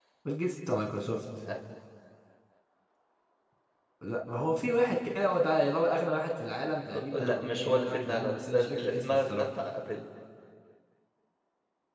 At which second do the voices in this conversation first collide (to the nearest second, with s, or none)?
7 s